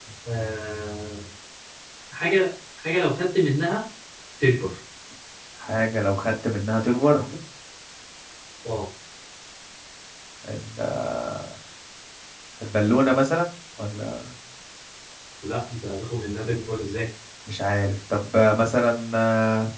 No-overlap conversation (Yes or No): Yes